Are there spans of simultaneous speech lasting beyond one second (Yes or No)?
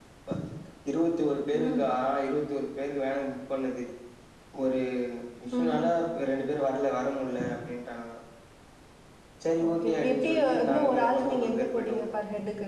Yes